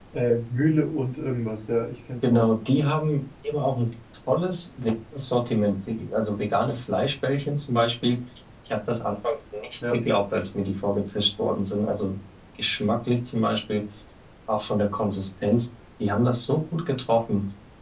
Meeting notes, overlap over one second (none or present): none